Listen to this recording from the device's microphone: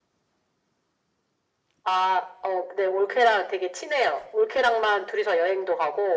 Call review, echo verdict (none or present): present